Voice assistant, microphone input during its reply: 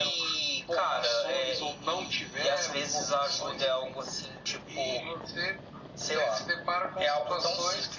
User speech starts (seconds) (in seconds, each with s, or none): none